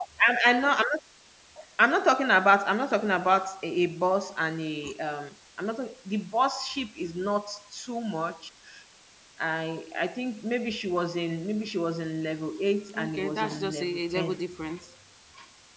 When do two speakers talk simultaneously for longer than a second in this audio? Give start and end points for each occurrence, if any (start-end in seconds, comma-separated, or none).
13.0-14.4